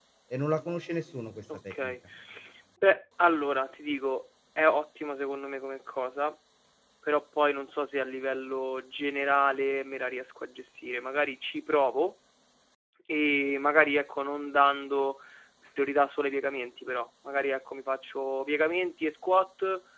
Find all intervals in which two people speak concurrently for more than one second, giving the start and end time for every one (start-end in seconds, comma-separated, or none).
none